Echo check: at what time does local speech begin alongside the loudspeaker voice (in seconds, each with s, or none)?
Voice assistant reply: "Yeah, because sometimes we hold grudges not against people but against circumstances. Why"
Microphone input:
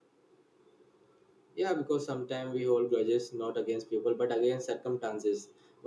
none